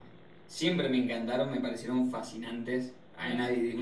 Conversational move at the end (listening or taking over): listening